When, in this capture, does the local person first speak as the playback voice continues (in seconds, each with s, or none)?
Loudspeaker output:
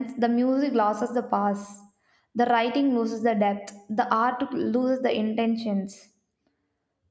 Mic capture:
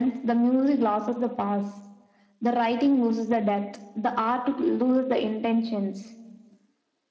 none